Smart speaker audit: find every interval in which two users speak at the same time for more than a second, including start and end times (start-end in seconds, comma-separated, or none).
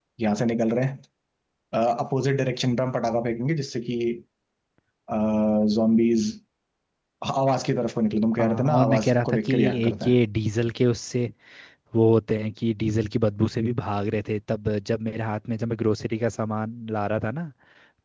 8.4-10.2